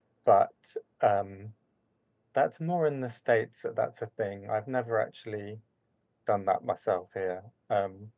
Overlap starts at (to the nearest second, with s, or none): none